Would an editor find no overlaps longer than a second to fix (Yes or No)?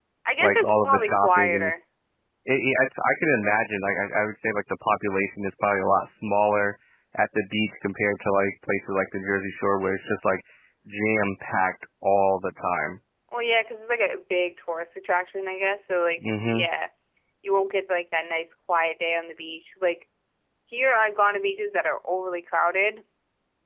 No